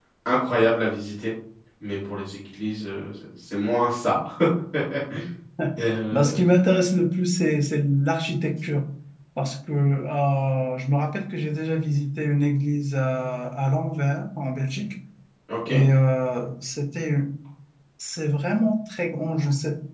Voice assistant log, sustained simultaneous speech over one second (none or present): none